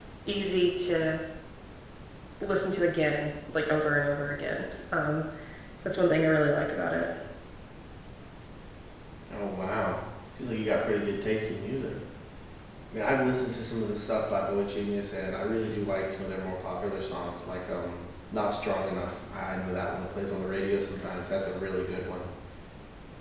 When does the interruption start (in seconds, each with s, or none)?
none